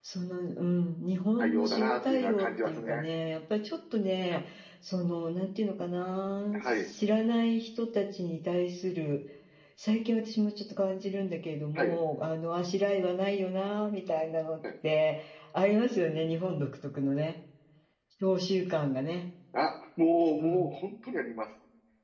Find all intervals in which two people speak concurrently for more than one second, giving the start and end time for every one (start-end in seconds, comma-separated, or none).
1.4-3.0